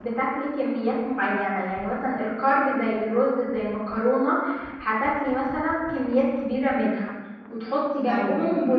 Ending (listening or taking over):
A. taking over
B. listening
B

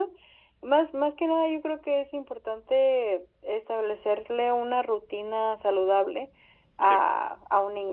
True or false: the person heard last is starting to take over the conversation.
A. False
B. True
A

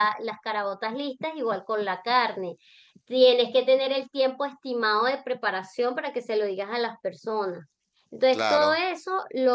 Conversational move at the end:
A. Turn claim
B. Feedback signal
B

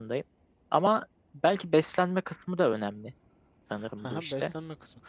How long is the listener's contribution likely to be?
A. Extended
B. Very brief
A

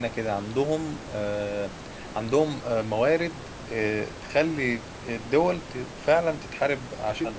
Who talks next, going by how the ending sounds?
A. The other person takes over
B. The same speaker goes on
A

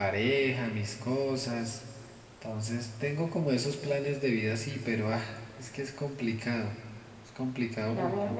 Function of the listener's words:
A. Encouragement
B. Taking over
B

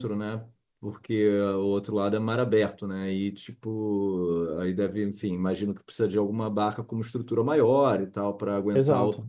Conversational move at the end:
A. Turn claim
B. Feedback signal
A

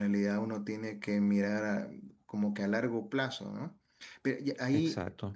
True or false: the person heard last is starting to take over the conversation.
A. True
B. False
B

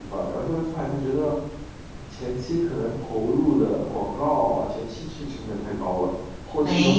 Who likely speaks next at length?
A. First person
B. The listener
B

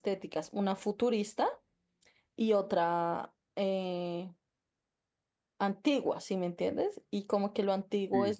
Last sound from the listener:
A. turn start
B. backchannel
B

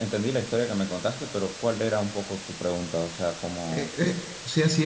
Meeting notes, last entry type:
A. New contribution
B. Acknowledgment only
A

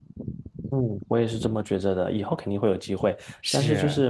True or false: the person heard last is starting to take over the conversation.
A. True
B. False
B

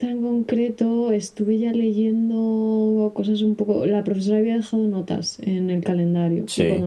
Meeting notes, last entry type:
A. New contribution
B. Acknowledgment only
B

